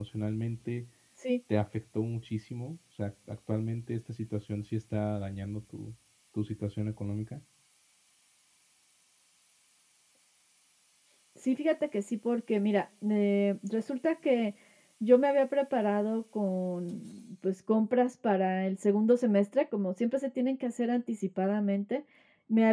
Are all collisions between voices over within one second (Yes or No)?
Yes